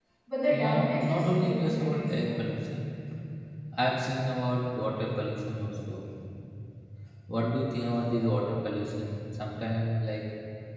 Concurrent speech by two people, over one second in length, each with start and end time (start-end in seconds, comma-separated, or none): 0.5-2.5